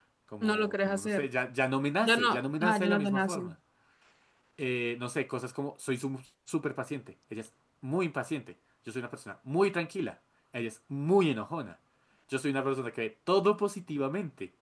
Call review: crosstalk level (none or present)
present